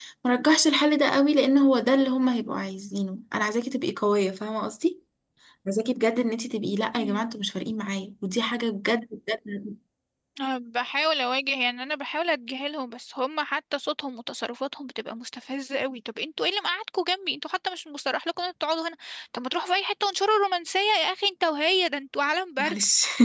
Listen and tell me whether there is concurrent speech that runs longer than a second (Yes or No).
No